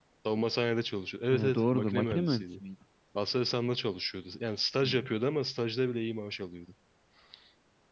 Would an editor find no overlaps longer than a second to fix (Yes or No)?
No